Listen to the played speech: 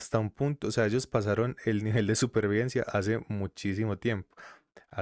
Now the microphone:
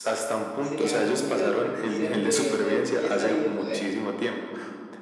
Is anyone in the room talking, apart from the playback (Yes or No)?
Yes